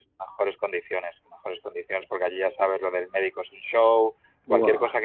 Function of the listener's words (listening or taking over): listening